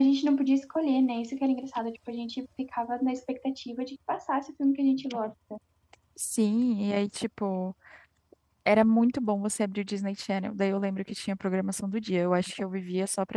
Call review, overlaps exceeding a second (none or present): none